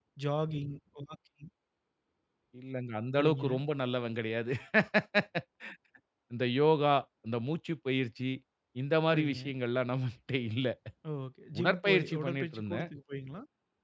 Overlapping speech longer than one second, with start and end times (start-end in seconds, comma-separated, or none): 11.6-12.9